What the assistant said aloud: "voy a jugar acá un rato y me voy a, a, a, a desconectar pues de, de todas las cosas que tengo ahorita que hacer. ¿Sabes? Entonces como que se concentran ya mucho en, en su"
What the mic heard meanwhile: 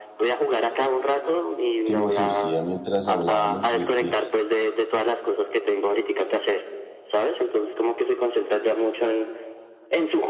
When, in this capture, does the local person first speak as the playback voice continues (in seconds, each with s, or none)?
1.8 s